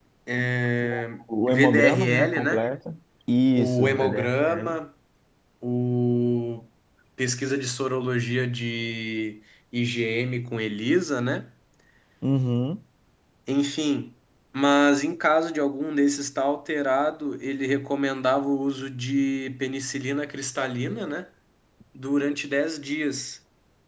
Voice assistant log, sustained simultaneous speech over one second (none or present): present